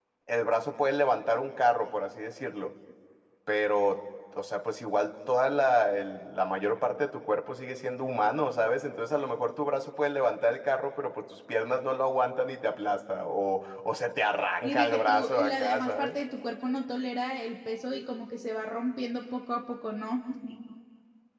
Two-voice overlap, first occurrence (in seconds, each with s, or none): 14.6 s